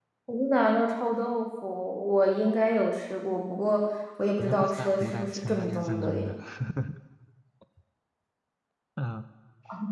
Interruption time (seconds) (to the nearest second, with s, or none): 4 s